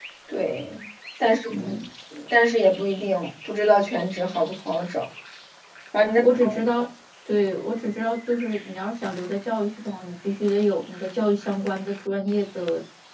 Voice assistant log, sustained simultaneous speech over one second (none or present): none